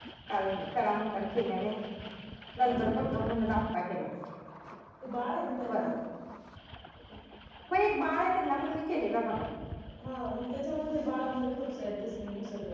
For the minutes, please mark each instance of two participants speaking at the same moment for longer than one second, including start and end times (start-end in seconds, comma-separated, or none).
none